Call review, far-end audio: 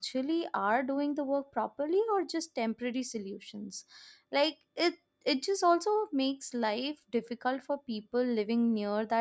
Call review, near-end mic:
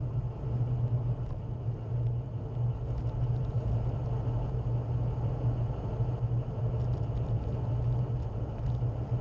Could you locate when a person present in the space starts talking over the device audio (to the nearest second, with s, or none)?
none